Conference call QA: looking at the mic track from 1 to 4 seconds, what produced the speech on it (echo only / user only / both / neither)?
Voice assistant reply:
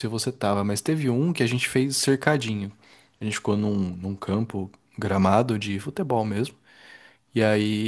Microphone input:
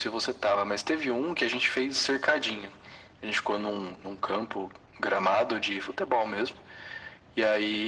echo only